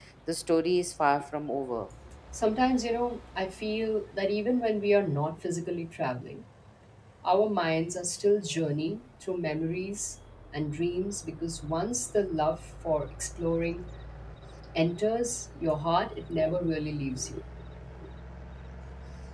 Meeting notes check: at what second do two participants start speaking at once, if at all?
none

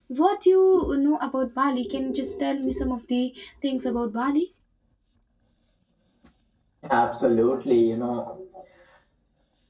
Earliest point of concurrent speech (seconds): none

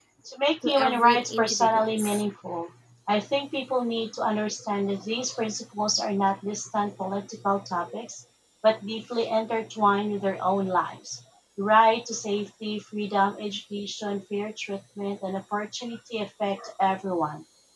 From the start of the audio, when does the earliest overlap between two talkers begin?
0.7 s

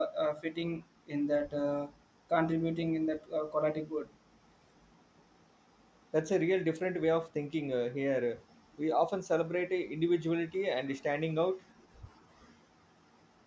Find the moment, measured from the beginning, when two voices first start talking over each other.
none

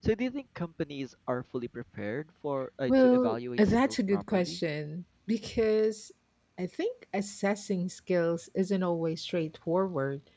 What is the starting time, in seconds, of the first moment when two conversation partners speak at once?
2.9 s

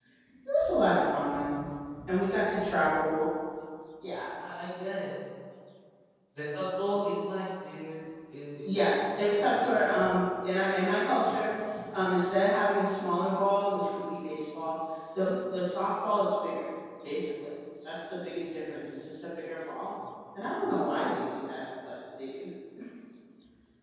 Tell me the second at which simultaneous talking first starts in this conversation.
8.6 s

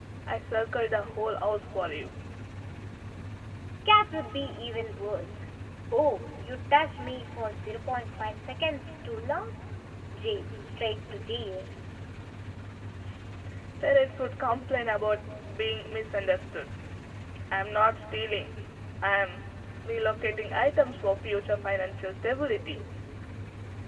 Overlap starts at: none

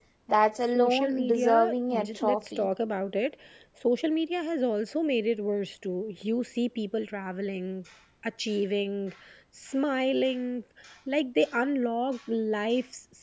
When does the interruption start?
0.7 s

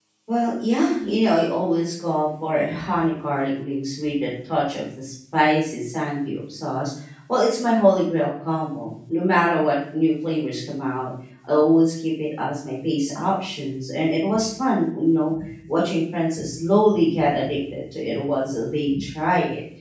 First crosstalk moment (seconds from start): none

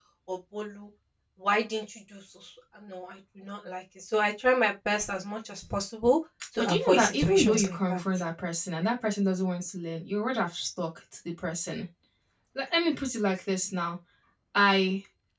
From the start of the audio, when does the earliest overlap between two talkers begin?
6.6 s

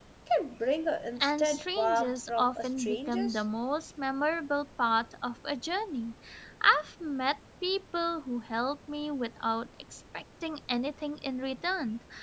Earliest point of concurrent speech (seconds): 1.2 s

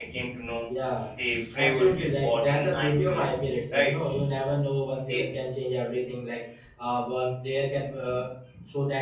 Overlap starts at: 1.5 s

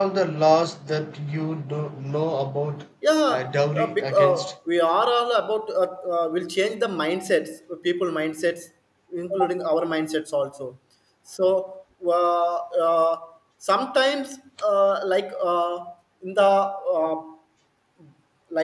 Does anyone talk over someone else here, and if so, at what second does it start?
3.3 s

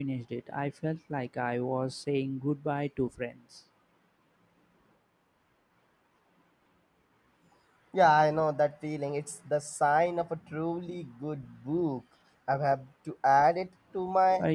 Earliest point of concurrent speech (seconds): none

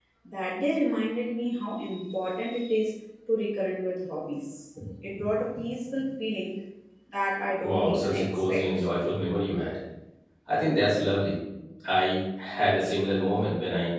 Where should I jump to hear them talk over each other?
7.6 s

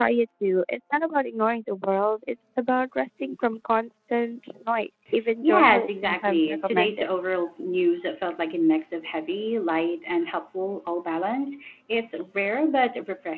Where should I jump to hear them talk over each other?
5.4 s

